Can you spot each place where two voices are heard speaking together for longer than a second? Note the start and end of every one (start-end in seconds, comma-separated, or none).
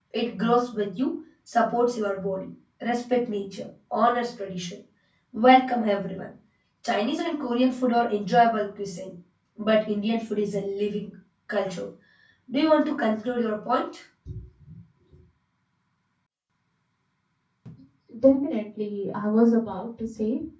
none